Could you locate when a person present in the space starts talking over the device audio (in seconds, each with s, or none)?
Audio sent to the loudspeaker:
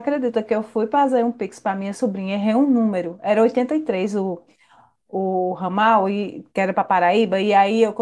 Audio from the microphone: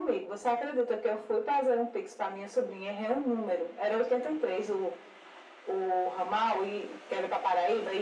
none